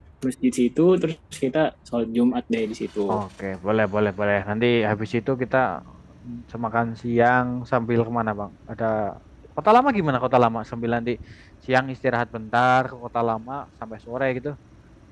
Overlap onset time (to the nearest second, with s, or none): none